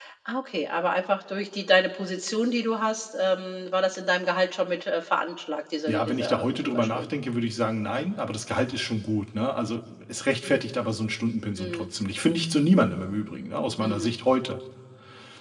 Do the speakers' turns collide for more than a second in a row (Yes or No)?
Yes